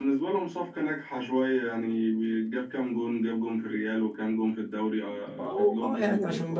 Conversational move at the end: taking over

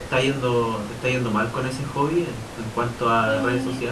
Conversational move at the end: taking over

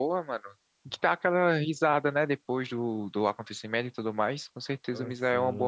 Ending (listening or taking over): taking over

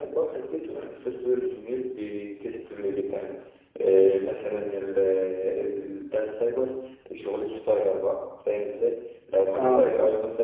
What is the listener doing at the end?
listening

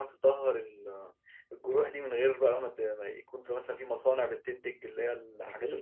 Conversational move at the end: taking over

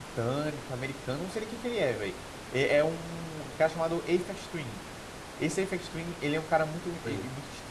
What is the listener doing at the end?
listening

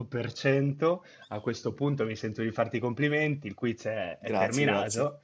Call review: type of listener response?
listening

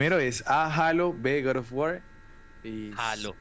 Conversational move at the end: taking over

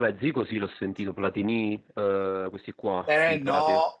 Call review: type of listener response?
taking over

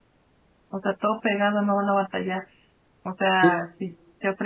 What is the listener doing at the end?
listening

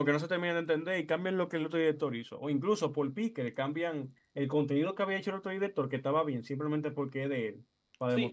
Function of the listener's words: taking over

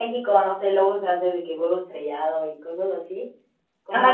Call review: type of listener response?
taking over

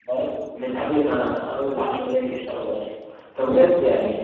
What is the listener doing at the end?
listening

